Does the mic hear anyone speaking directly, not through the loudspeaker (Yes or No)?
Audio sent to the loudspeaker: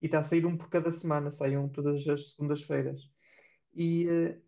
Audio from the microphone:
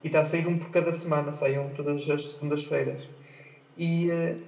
No